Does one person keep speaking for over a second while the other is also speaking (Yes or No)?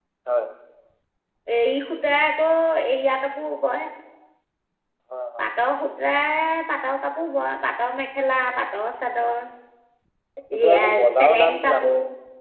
Yes